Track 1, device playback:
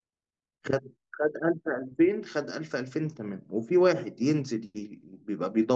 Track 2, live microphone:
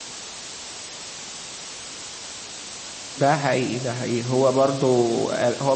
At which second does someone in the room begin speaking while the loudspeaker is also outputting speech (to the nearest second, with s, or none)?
3 s